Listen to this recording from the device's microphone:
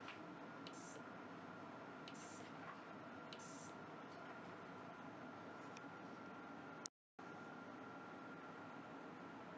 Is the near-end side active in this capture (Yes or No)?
No